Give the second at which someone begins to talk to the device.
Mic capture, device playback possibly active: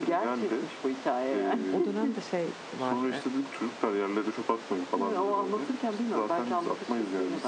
2 s

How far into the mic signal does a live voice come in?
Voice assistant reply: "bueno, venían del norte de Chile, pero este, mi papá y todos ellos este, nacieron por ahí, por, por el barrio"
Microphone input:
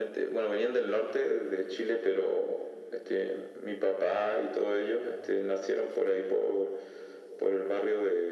none

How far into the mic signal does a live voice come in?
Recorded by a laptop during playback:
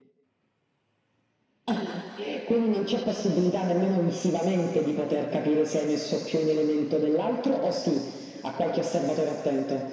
none

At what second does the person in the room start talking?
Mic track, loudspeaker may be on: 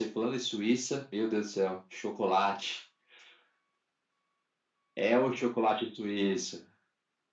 none

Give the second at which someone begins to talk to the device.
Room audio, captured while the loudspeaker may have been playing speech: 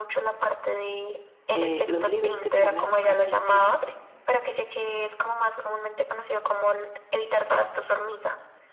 2 s

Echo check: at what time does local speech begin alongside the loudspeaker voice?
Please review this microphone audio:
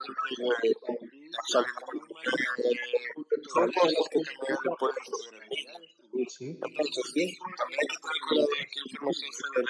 6 s

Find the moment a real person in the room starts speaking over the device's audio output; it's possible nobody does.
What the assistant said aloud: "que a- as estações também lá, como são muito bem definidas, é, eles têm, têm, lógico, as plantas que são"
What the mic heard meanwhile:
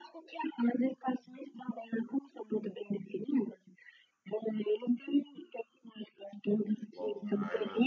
7 s

